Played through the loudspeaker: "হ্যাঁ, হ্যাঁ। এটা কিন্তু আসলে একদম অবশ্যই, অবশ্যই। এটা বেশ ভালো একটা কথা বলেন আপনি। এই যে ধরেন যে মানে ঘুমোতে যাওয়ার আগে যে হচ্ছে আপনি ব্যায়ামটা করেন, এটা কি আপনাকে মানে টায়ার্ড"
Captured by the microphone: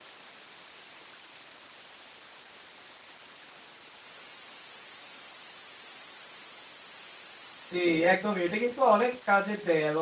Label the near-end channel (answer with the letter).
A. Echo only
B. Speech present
B